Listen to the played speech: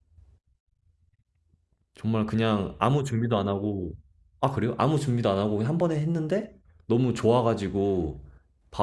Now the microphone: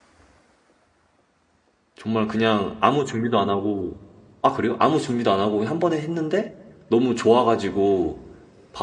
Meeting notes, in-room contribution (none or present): none